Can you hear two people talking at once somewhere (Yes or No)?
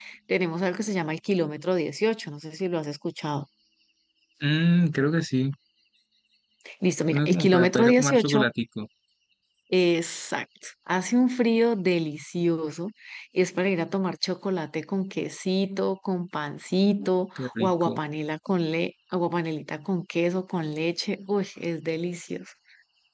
Yes